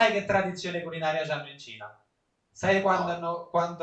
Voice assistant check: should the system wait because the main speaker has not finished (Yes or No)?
Yes